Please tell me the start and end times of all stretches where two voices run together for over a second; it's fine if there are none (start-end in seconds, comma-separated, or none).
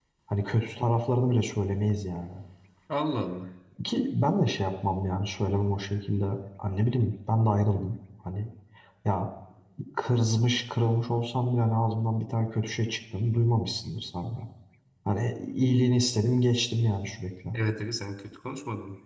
none